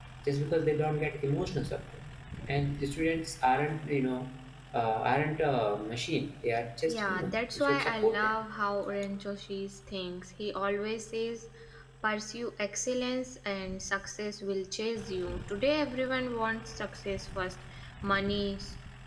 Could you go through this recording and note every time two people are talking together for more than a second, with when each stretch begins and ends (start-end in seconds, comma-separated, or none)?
6.9-8.4